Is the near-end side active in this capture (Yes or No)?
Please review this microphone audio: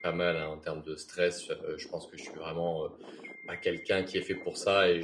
Yes